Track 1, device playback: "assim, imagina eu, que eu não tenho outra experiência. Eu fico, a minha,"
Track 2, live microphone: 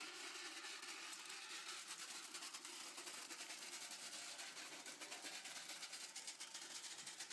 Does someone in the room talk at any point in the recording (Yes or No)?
No